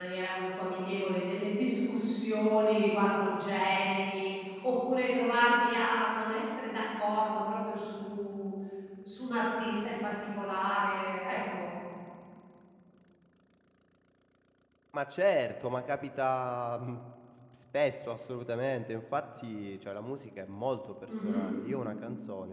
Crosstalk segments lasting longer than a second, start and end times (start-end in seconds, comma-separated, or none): none